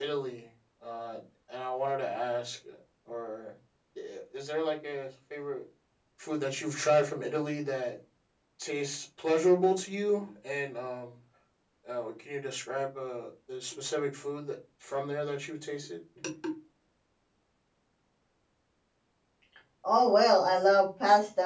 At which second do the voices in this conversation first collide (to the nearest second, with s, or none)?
none